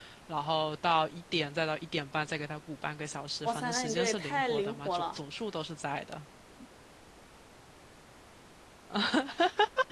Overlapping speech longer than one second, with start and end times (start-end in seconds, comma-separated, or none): 3.4-5.2